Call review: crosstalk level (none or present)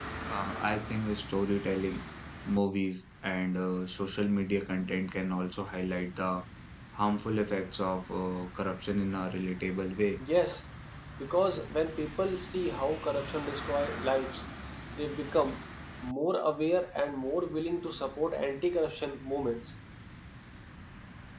none